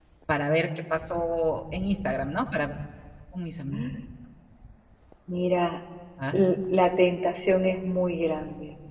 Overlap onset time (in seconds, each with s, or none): none